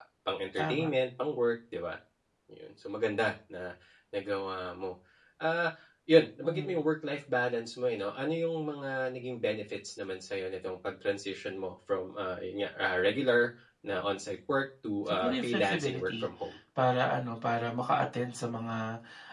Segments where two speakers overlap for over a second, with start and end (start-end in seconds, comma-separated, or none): 15.1-16.3